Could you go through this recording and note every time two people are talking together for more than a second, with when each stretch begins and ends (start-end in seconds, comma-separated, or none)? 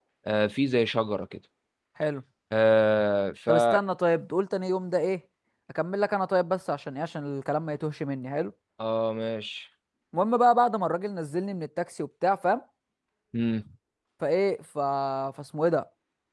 none